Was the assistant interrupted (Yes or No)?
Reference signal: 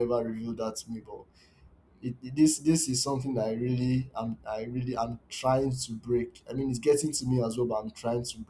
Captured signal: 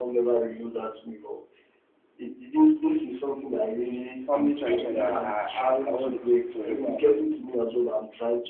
Yes